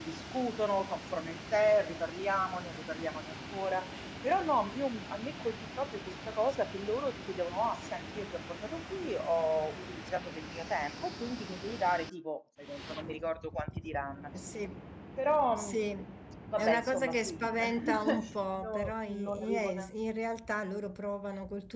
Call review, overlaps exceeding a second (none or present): present